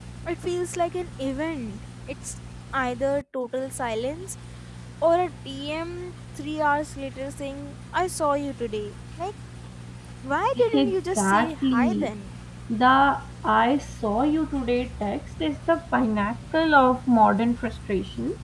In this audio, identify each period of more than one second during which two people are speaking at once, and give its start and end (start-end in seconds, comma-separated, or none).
10.7-12.1